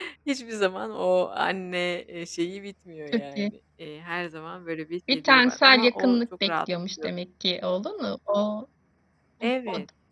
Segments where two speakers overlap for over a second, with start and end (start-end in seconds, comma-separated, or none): 5.1-6.5